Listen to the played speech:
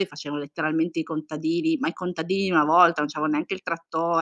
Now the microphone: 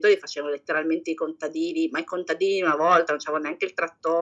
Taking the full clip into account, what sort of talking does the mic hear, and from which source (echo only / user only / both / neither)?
echo only